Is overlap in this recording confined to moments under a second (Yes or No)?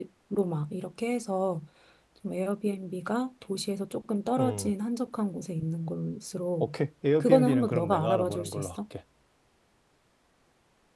No